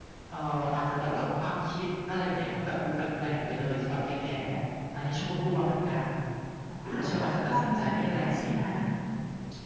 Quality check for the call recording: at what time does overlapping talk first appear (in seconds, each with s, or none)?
6.8 s